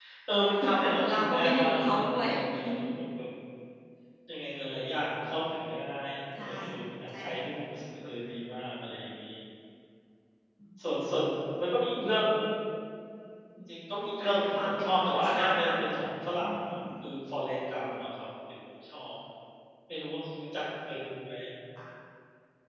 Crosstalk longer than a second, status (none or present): present